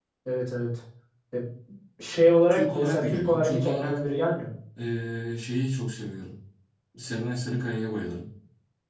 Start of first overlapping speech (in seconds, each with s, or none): 2.5 s